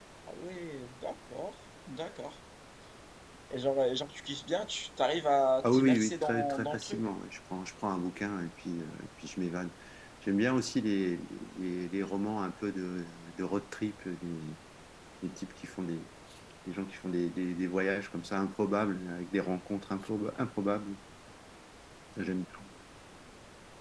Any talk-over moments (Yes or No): Yes